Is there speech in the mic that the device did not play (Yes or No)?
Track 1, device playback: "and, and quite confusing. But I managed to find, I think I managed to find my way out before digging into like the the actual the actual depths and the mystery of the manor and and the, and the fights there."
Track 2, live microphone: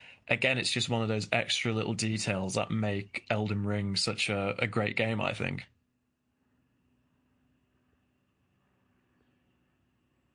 Yes